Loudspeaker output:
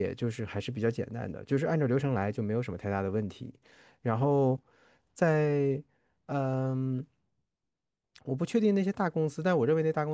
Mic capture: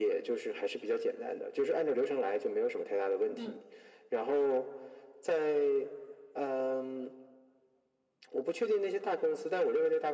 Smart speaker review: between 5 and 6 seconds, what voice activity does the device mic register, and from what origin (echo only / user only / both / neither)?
echo only